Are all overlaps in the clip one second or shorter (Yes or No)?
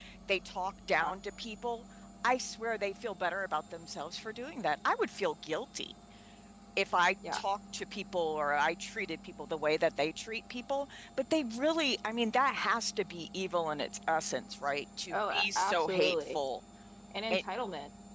No